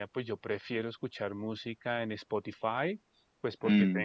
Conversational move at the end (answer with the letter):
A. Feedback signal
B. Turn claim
A